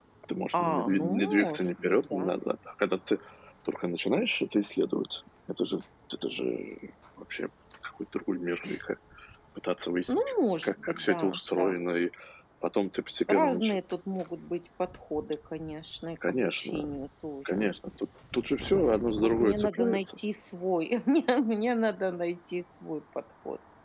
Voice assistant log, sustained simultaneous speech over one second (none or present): present